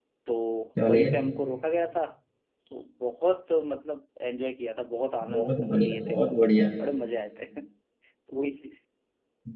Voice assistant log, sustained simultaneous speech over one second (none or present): present